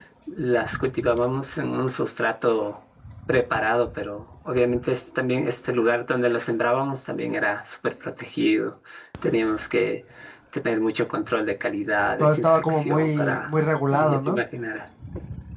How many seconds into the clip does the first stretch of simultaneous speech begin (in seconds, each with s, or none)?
12.2 s